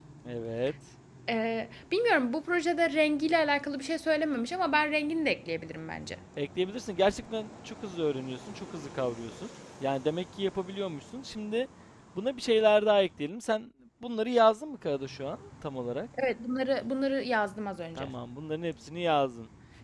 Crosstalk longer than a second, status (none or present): none